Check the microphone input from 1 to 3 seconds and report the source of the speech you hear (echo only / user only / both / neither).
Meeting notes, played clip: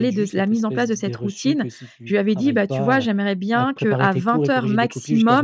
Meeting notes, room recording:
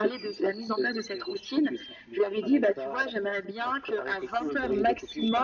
echo only